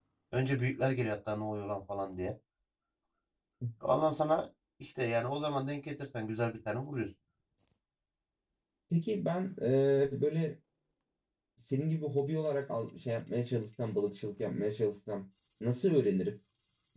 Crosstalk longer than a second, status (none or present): none